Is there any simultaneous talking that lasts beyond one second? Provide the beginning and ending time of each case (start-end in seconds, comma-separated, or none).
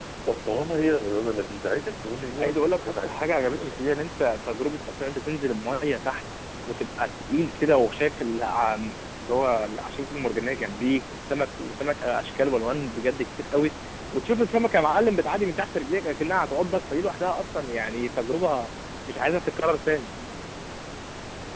2.4-3.9